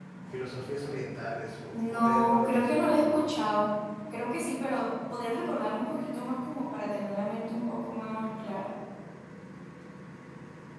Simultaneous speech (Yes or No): Yes